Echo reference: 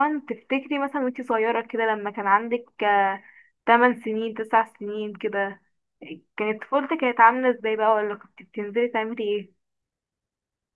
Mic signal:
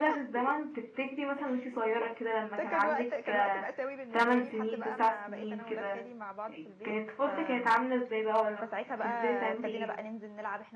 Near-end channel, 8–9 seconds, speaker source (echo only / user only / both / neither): both